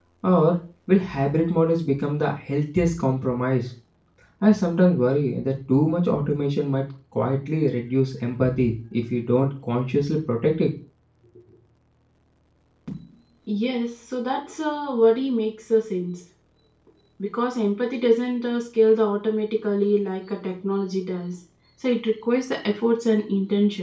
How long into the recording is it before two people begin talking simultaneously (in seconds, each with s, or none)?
none